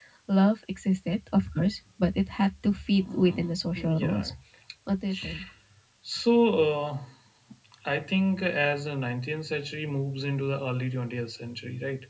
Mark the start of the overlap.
3.0 s

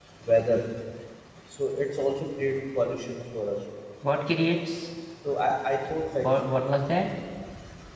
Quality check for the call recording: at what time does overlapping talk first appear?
none

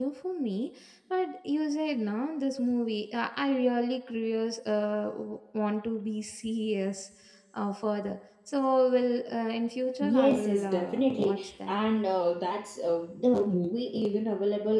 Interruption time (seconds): 10.0 s

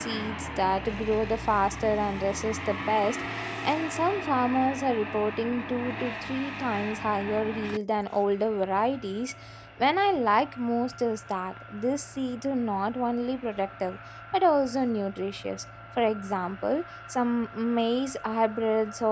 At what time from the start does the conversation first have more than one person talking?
none

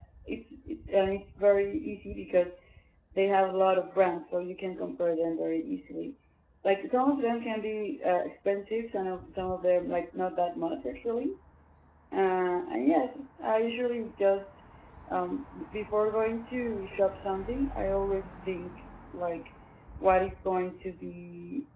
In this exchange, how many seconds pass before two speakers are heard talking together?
none

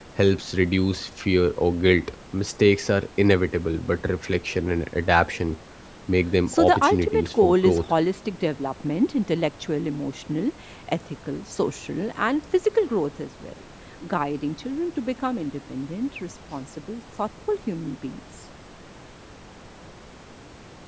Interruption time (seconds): 6.5 s

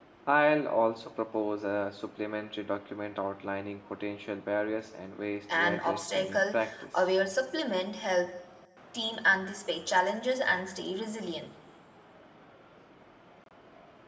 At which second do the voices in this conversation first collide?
5.5 s

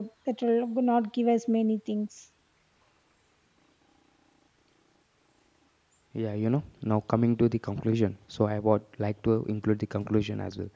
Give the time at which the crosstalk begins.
none

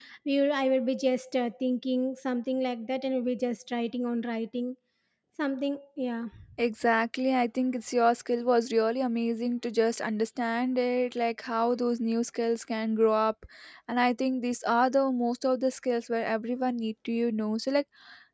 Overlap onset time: none

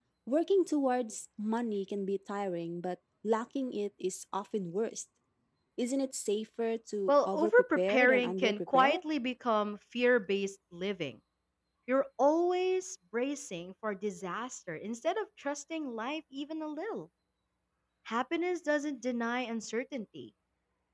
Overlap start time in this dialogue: 7.1 s

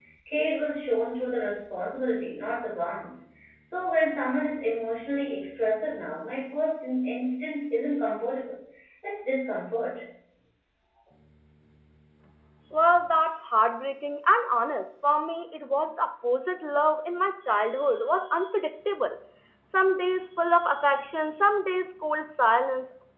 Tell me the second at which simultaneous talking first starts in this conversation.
none

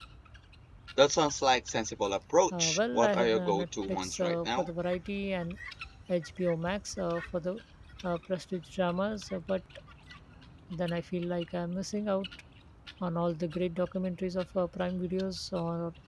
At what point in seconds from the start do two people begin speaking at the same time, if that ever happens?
2.5 s

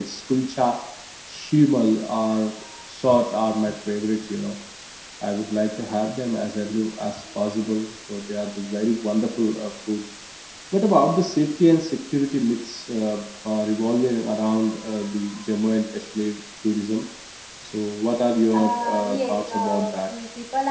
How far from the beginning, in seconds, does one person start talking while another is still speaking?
18.5 s

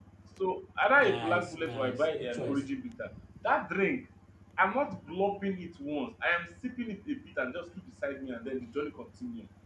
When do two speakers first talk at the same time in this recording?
1.0 s

